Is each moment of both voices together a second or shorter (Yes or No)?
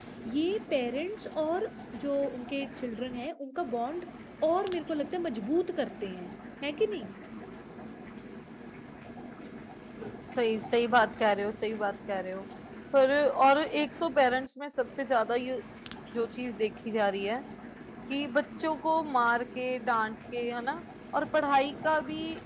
Yes